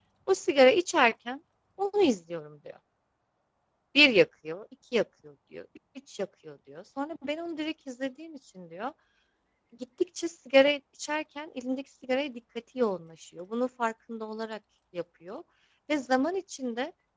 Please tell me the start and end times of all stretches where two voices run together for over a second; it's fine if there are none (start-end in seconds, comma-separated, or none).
none